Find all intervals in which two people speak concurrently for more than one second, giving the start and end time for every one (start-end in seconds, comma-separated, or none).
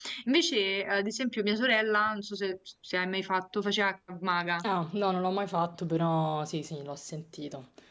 none